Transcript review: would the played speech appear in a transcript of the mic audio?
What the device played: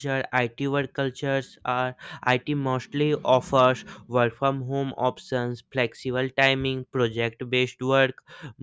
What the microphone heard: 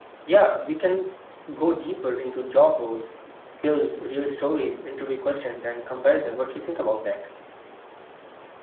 No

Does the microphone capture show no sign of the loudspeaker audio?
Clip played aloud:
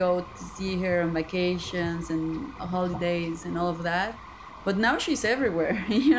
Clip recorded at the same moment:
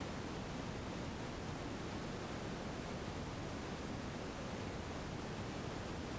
Yes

